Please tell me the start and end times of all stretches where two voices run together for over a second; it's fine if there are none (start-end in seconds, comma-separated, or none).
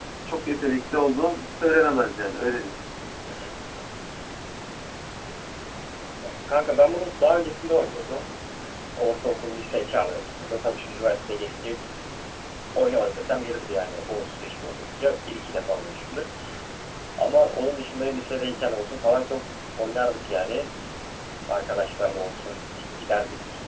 none